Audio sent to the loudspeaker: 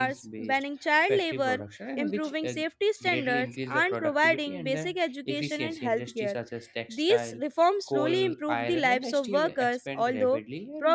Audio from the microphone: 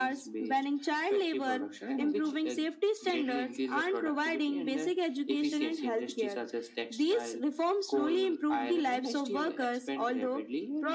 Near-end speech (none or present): none